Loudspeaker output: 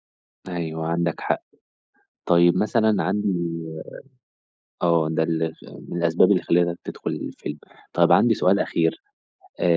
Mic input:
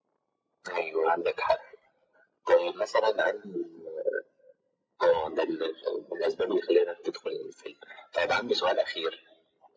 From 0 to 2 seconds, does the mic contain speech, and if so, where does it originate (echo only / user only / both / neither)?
echo only